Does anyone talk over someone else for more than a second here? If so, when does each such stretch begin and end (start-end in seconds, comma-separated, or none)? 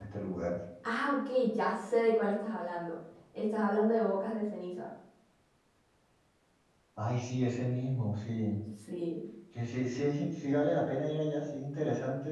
none